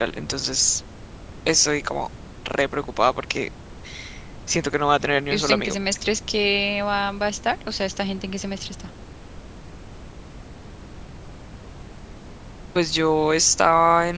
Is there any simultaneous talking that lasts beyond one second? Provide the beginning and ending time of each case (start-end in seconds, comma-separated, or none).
none